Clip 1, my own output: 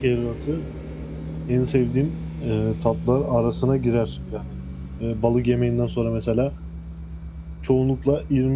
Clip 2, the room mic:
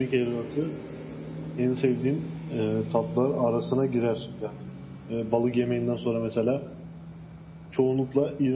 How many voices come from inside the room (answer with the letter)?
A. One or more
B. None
B